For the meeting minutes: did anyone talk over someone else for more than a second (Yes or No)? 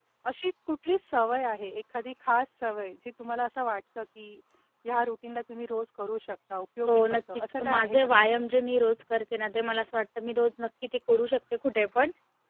Yes